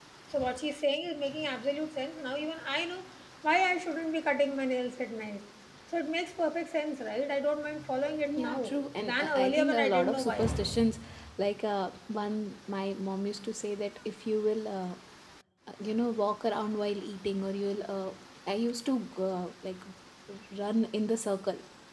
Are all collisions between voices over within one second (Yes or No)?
No